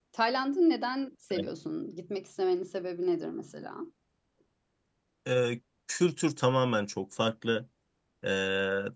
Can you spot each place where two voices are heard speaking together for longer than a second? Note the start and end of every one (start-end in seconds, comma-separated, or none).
none